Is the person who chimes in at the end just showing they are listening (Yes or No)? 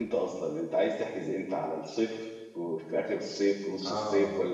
No